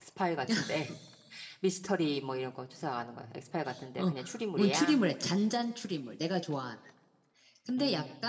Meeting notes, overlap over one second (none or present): none